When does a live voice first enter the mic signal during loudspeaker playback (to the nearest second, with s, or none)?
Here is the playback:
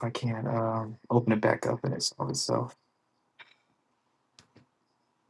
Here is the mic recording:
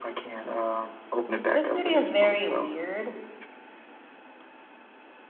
2 s